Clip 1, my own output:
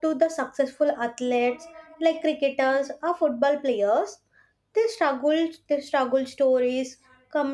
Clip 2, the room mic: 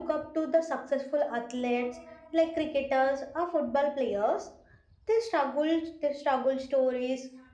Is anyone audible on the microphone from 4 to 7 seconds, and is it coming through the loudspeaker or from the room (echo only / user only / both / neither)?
echo only